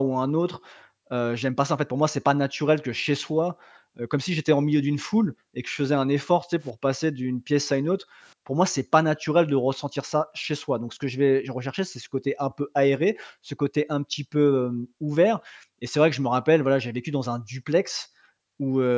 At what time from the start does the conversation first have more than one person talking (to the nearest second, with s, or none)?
none